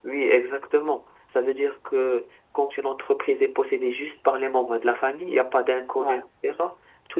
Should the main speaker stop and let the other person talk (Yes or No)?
No